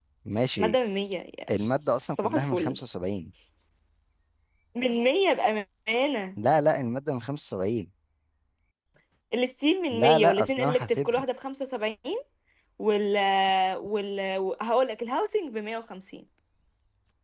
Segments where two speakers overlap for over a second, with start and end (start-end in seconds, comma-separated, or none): 1.5-2.8, 9.9-11.2